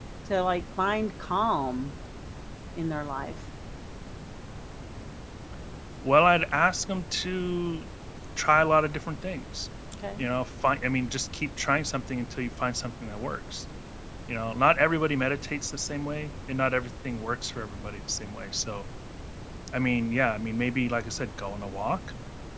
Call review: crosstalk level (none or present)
none